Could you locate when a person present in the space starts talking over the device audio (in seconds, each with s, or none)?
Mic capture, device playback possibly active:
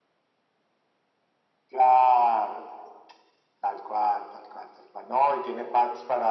none